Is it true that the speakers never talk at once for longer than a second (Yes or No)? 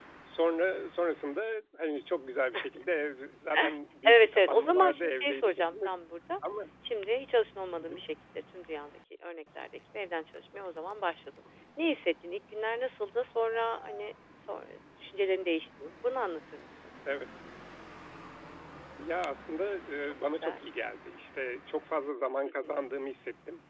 No